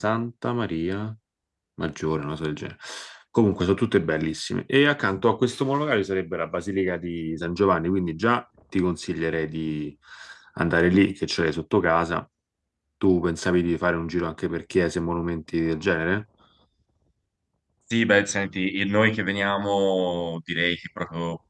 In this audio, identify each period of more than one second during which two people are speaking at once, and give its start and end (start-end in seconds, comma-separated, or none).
none